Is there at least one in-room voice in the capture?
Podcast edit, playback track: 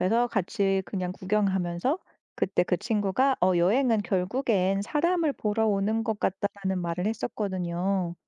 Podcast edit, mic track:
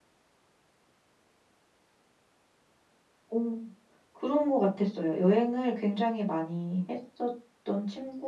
Yes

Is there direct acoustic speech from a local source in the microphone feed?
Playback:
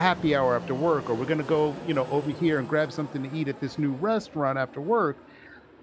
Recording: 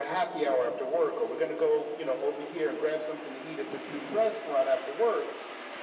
No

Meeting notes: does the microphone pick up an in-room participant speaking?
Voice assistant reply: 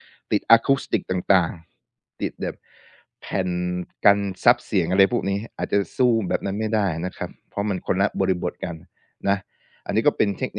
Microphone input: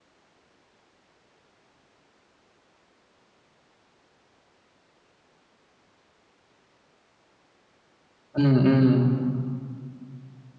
Yes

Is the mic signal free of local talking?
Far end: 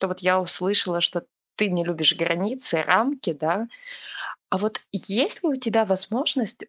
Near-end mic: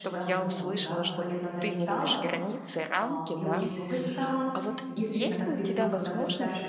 No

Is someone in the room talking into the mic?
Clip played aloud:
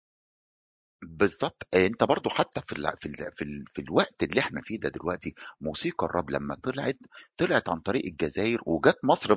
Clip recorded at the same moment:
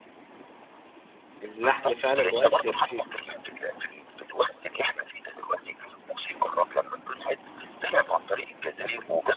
Yes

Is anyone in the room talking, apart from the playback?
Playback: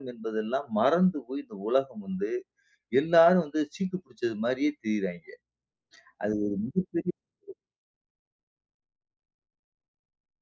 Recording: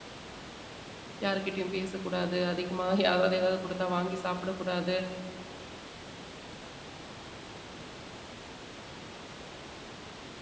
Yes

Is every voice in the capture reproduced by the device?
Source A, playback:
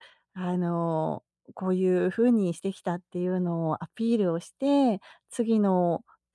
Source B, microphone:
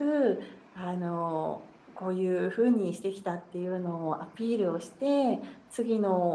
Yes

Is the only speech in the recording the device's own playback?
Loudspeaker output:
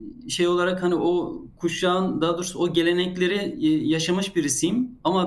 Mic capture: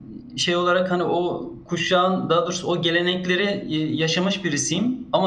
Yes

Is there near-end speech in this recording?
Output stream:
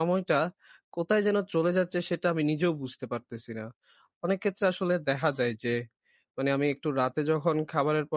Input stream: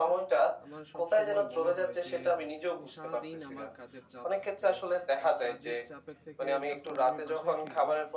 Yes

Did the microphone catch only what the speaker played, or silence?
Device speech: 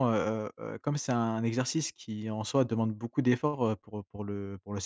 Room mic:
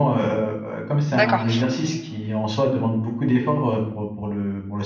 No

